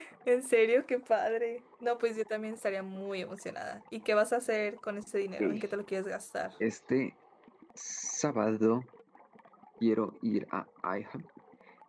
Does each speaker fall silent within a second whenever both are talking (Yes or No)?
Yes